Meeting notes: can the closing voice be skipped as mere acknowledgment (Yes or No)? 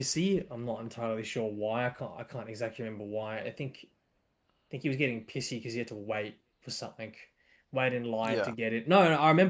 Yes